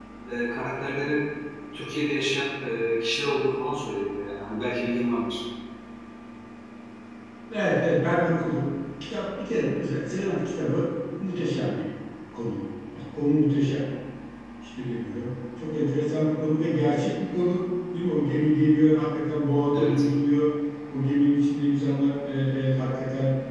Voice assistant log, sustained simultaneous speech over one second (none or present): none